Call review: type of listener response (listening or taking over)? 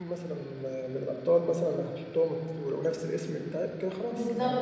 taking over